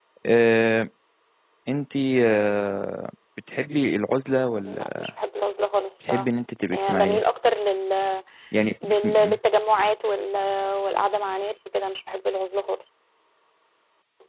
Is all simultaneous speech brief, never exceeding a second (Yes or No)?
Yes